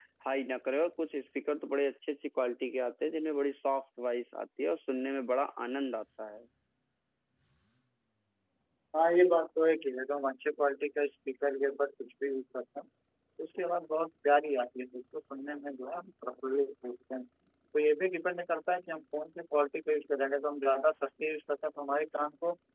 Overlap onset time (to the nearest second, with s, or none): none